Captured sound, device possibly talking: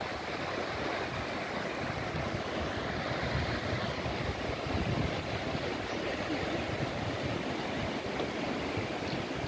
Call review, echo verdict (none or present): none